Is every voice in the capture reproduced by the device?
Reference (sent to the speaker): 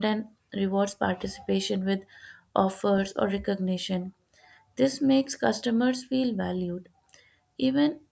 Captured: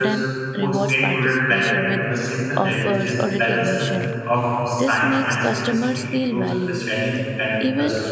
No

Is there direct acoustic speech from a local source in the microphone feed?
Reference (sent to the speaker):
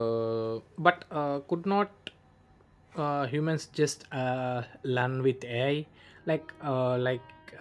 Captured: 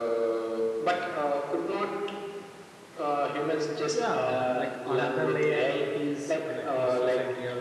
Yes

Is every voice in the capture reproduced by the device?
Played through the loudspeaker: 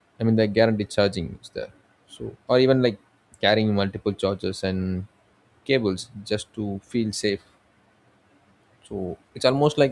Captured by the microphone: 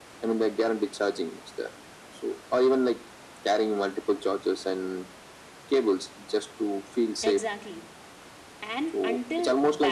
No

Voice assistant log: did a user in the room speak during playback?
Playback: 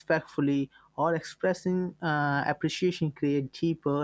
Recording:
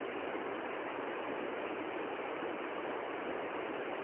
No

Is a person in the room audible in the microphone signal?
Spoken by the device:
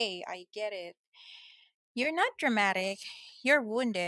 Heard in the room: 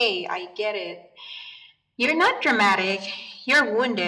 No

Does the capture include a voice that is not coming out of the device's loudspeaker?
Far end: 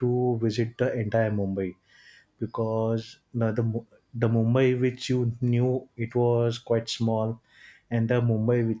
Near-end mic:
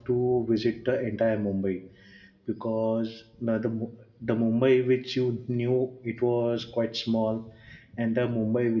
No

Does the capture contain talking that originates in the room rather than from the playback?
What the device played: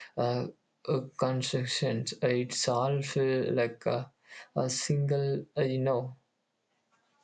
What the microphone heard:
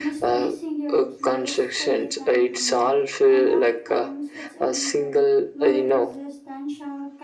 Yes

